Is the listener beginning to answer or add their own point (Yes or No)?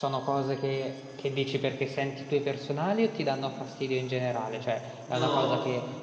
No